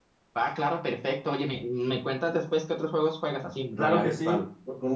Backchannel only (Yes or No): No